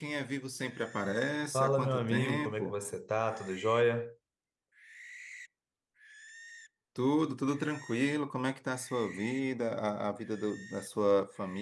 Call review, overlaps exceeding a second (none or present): present